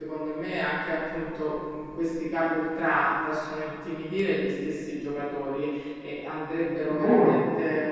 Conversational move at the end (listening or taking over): listening